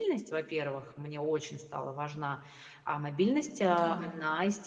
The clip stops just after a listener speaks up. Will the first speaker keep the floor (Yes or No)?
Yes